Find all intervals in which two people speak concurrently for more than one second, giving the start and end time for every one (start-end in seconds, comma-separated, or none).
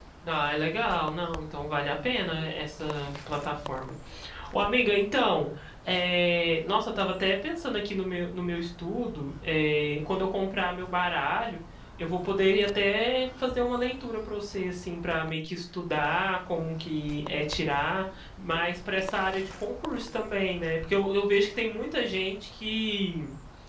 none